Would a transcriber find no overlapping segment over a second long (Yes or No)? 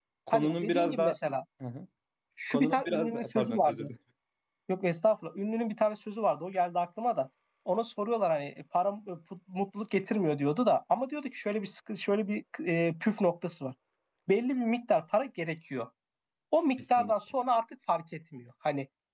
No